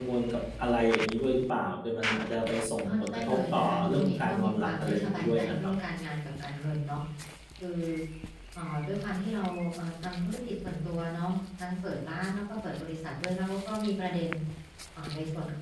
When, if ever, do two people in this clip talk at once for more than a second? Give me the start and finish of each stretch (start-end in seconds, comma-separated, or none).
2.9-5.7